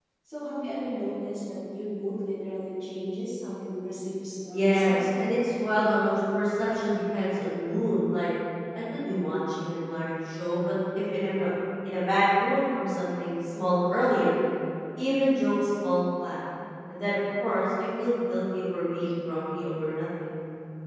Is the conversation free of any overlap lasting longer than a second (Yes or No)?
Yes